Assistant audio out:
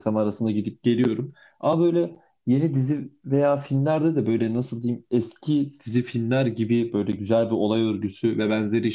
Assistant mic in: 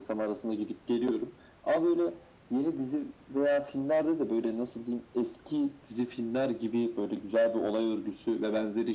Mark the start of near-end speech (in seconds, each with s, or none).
none